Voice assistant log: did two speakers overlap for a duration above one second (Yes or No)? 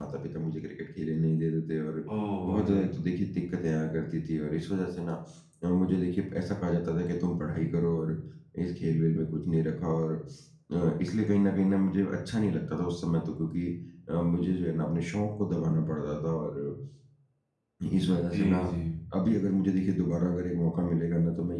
No